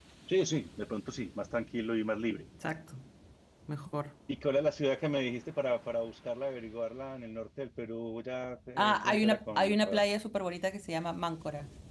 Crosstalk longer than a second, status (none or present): present